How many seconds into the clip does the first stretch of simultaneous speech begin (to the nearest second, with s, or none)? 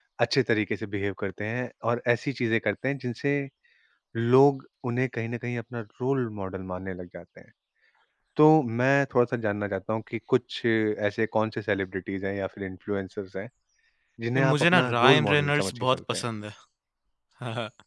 14 s